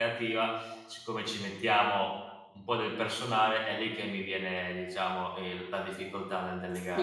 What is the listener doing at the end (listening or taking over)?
taking over